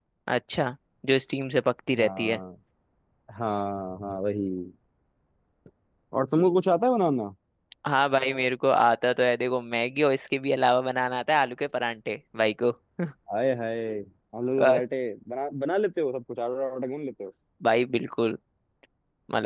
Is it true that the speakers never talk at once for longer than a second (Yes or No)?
Yes